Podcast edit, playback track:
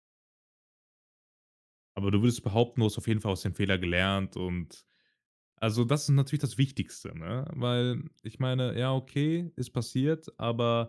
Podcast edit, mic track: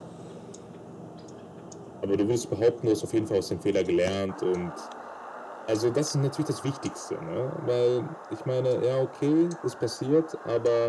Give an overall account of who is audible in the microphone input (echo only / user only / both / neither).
echo only